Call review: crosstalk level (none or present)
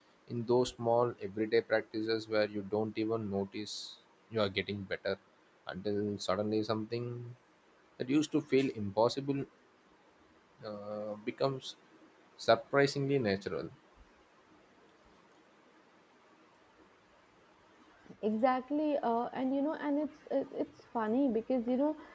none